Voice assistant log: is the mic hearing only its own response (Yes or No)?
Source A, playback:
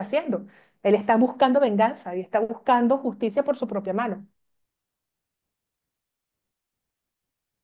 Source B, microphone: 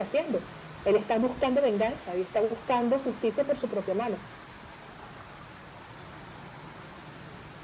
Yes